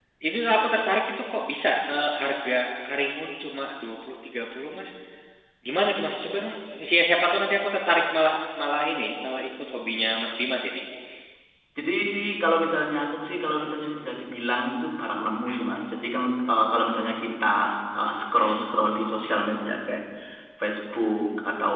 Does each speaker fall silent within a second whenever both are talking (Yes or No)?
Yes